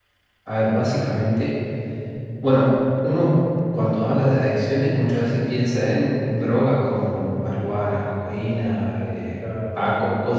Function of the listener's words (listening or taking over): listening